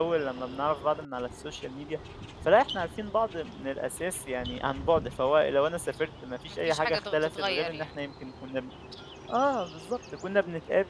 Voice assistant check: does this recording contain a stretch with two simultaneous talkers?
Yes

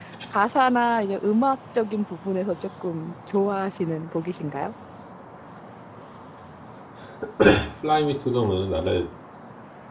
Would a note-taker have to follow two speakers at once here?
No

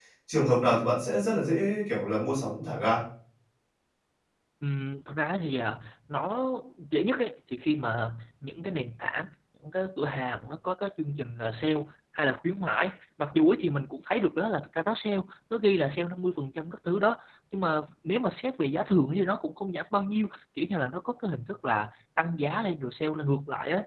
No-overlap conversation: Yes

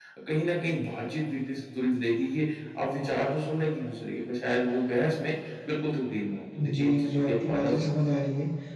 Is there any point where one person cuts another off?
Yes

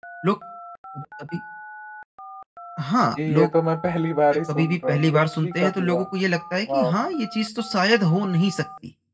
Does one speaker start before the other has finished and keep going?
Yes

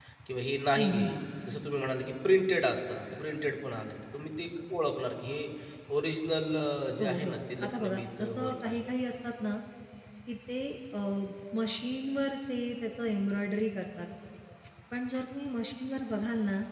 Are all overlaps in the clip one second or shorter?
No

